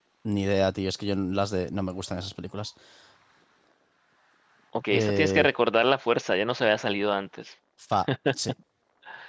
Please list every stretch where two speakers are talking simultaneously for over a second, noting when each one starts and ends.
none

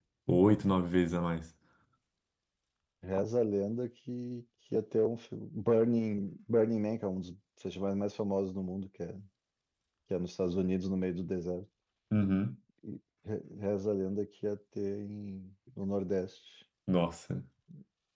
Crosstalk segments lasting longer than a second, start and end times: none

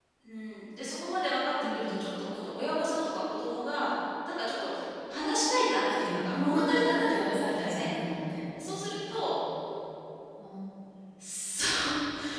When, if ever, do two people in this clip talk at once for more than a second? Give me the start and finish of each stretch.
6.0-7.9

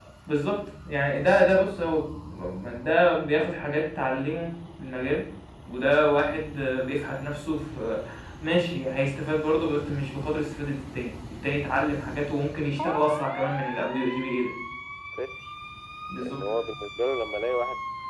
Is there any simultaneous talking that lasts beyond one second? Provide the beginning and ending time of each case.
none

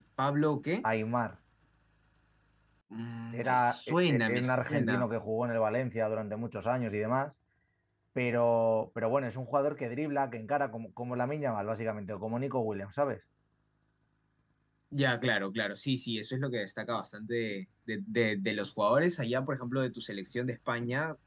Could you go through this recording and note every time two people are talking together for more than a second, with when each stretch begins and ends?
3.3-5.0

